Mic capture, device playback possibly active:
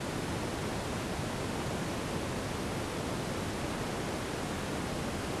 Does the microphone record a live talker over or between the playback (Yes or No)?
No